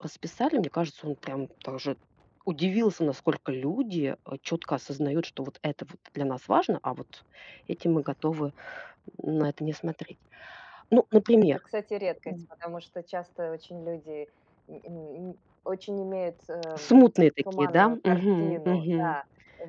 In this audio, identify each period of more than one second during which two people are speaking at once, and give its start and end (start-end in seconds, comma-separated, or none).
17.6-19.2